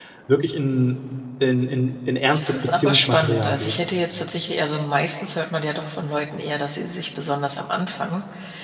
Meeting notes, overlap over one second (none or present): present